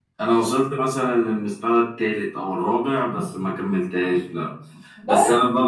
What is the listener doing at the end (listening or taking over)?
listening